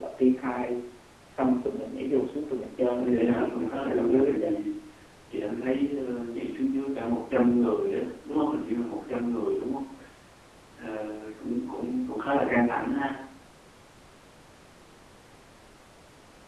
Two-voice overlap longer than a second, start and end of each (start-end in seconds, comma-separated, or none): 3.0-4.5